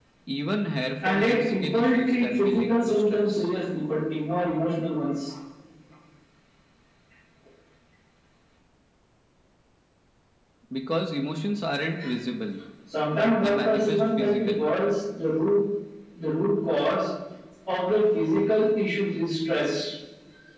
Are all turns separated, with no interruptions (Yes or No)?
No